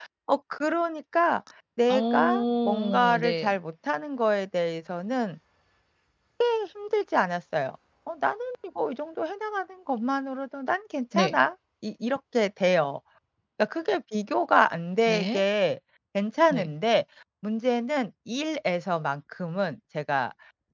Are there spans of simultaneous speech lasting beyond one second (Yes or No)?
Yes